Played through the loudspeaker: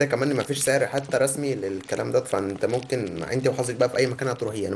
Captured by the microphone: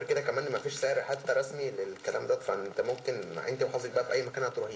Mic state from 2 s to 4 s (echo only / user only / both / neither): echo only